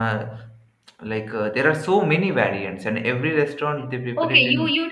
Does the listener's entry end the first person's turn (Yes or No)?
Yes